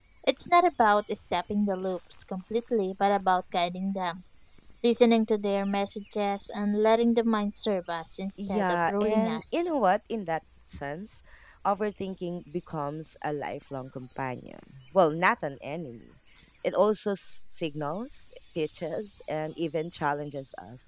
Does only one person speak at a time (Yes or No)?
No